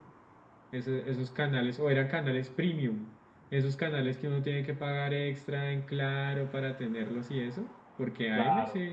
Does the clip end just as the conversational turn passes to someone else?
No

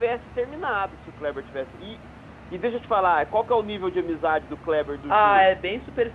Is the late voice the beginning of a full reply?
Yes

